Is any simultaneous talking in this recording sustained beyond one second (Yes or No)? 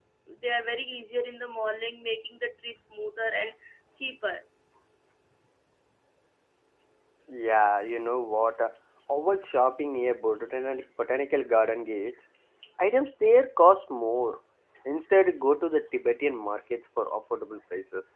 No